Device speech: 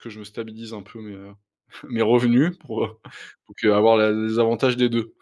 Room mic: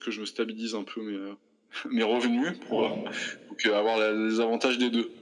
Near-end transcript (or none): Oui.